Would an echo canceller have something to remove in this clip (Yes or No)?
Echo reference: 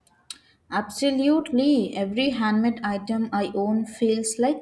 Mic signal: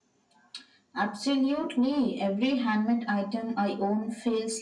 Yes